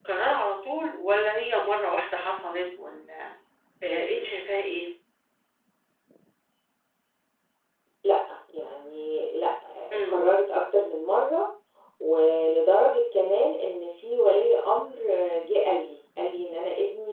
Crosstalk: none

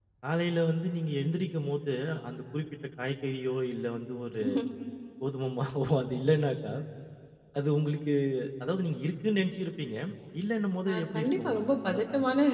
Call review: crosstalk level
present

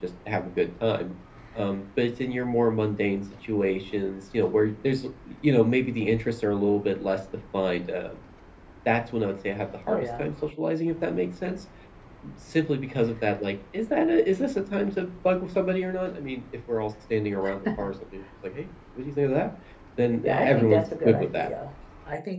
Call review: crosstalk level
present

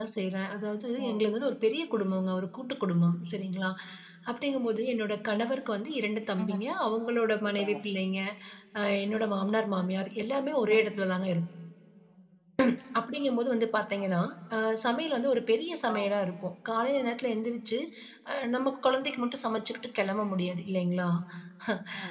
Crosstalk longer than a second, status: none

